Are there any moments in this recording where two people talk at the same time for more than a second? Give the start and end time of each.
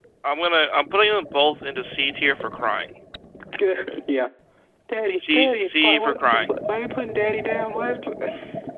5.2-6.4

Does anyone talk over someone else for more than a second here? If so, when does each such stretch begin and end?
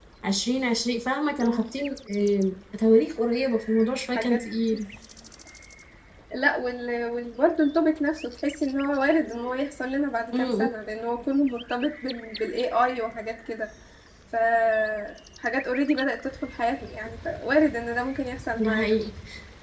none

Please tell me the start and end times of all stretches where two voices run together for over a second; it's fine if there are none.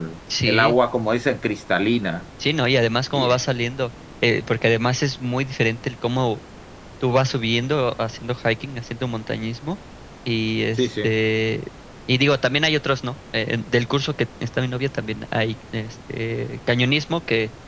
none

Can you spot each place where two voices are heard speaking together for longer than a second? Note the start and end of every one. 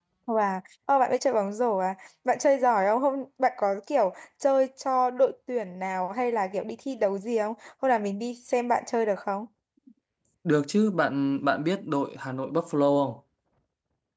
none

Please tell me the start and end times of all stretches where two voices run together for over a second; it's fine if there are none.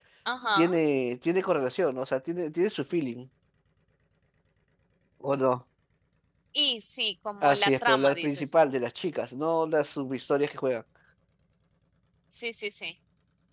7.4-8.7

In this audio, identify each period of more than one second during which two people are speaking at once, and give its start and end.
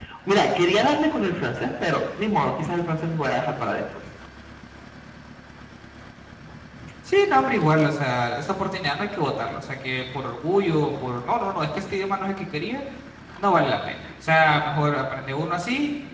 none

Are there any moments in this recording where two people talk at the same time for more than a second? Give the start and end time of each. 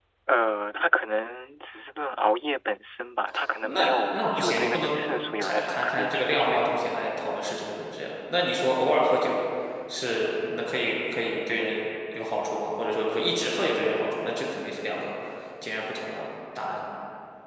3.6-4.9, 5.4-7.0

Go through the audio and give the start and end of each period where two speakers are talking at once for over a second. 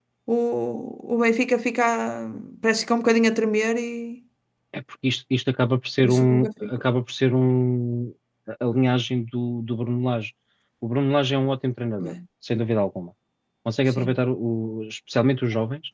none

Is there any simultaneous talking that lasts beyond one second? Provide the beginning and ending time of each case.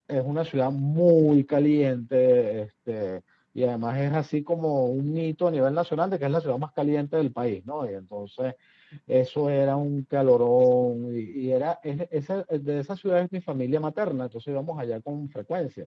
none

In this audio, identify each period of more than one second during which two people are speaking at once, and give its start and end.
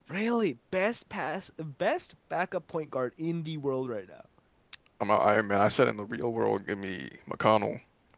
none

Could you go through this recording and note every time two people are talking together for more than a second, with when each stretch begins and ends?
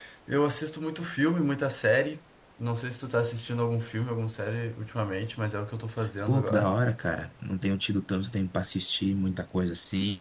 none

